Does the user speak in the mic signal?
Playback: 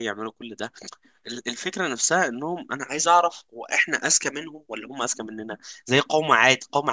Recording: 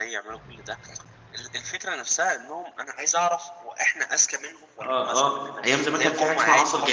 Yes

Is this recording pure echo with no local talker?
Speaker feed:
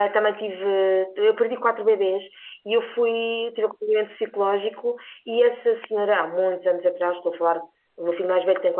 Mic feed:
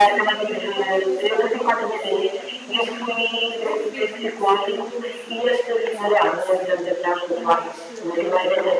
No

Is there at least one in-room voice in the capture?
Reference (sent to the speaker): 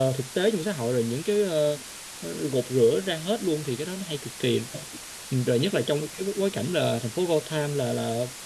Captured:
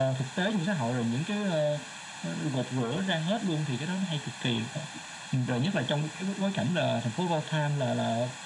No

